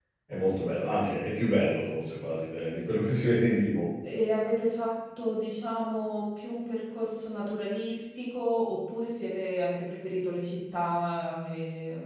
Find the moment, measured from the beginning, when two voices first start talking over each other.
none

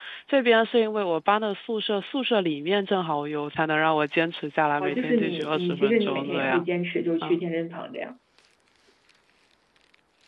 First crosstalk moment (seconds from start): 5 s

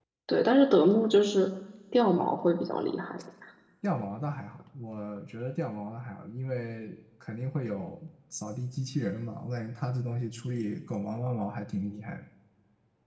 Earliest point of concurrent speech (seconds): none

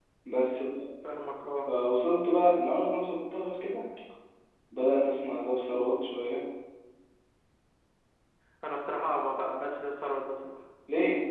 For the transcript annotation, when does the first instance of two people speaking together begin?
none

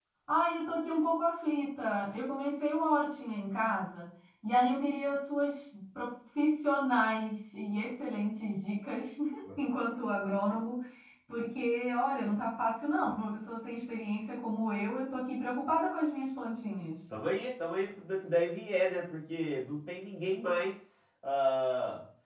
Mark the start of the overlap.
none

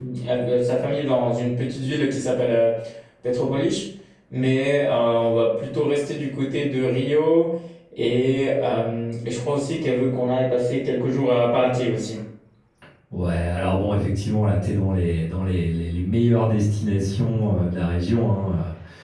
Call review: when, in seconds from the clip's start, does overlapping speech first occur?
none

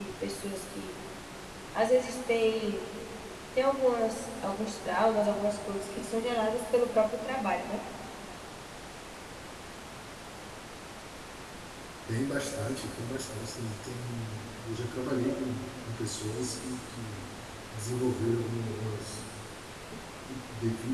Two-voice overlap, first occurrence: none

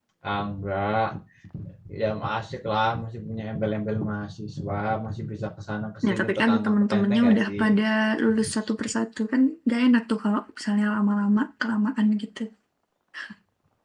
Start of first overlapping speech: 6 s

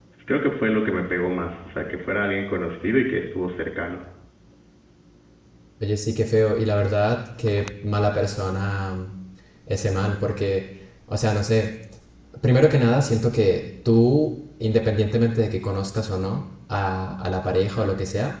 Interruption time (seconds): none

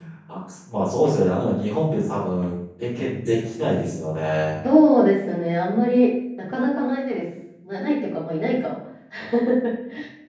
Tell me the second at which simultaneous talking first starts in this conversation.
none

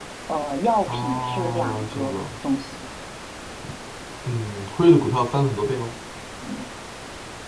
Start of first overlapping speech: 1 s

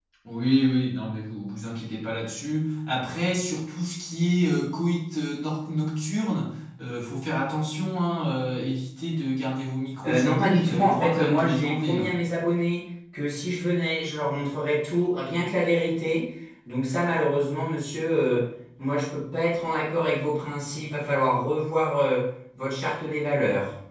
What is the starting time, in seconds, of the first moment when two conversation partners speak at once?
10 s

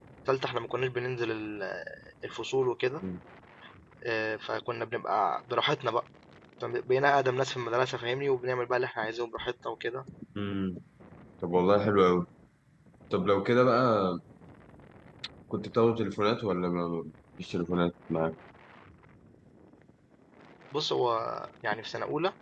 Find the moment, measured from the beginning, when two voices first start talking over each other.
none

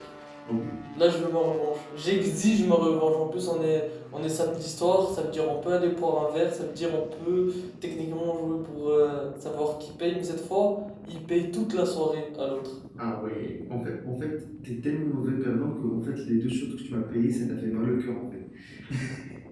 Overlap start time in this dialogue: none

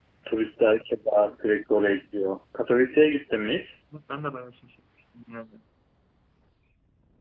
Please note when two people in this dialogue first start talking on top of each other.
none

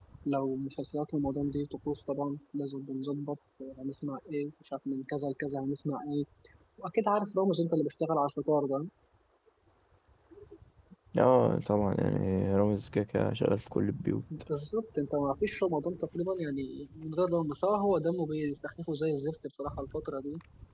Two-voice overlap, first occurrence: none

